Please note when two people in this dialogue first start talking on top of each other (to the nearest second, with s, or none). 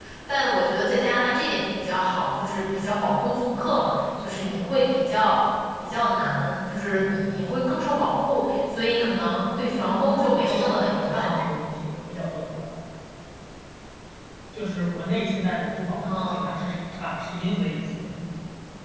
10 s